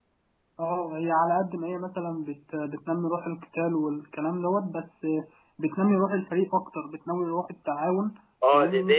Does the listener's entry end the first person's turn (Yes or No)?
Yes